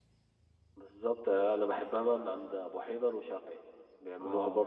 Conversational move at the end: listening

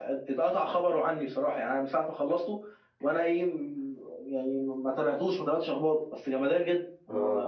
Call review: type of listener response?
taking over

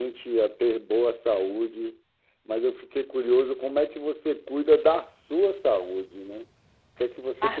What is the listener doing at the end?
listening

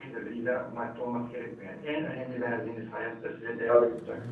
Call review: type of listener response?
listening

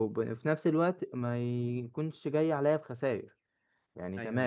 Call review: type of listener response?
listening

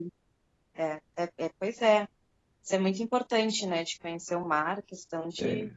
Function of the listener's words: listening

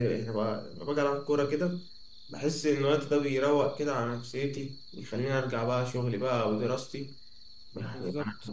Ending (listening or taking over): listening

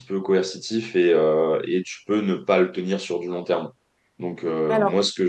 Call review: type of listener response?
listening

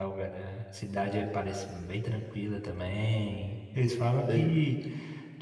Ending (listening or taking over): listening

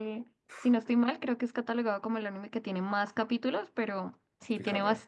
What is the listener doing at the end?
listening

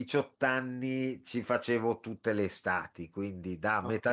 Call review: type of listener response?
listening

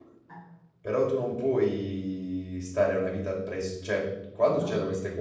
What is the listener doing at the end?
listening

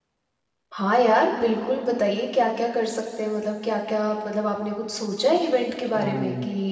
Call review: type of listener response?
taking over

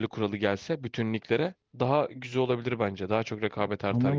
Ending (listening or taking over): taking over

